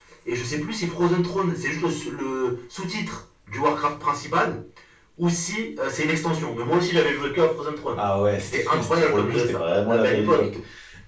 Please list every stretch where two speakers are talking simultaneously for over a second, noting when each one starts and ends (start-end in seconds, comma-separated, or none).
8.4-10.5